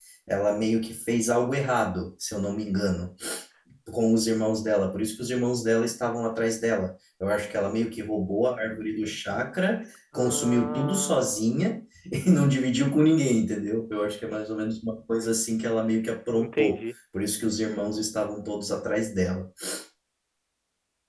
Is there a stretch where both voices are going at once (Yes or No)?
Yes